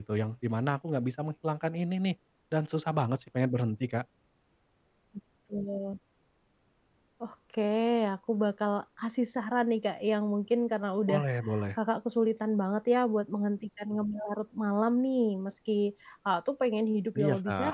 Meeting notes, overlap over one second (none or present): none